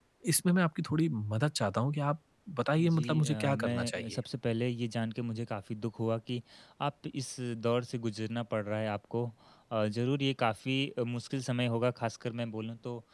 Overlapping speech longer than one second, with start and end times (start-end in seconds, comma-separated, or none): 2.8-4.2